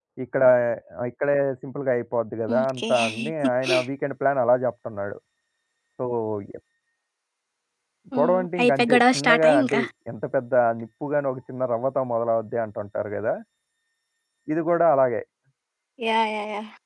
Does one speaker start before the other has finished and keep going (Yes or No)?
Yes